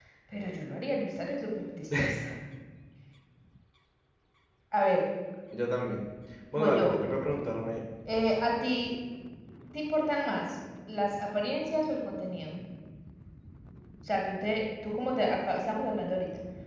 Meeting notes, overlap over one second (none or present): none